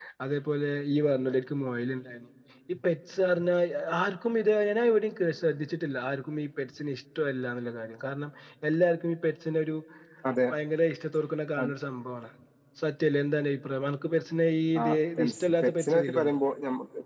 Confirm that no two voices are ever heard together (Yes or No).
No